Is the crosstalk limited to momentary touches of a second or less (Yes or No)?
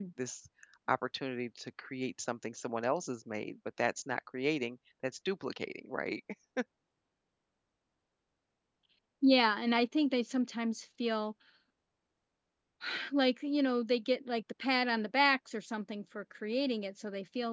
Yes